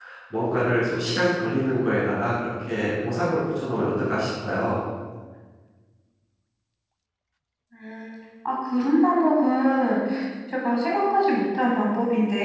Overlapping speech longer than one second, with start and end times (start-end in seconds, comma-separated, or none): none